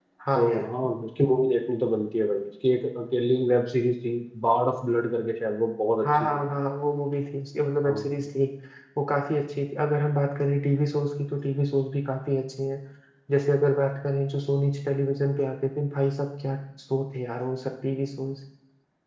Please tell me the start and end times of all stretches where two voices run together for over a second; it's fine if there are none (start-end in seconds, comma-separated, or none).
none